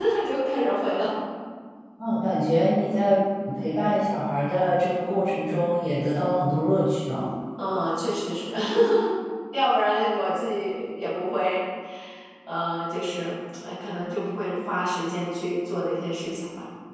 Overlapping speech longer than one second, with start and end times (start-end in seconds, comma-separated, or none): none